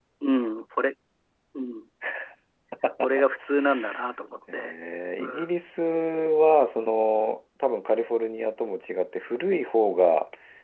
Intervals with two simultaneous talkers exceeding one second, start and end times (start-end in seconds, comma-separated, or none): none